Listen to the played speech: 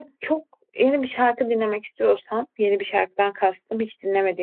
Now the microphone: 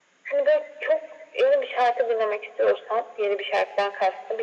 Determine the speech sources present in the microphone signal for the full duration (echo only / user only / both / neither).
echo only